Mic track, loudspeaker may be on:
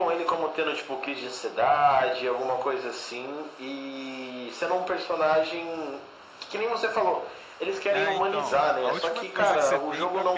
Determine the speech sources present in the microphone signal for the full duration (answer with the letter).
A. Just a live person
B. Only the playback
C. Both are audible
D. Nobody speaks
C